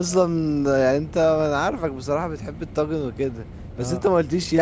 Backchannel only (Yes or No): Yes